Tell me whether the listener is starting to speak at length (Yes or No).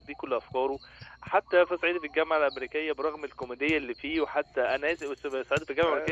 No